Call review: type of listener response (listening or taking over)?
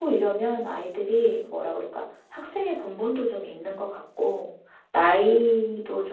listening